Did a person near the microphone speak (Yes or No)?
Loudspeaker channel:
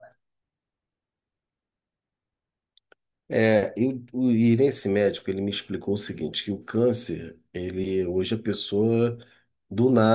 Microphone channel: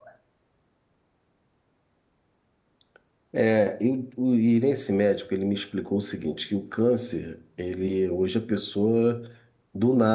No